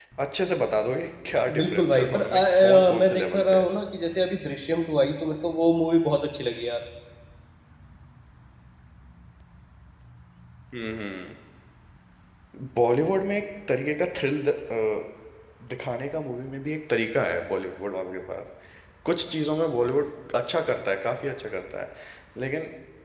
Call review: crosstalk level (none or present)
present